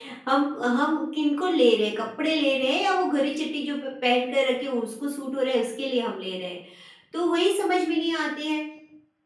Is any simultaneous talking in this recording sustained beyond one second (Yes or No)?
No